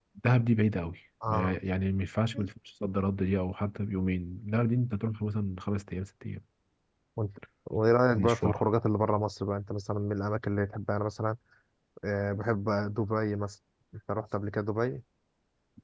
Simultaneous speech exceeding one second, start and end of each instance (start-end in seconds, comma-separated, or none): none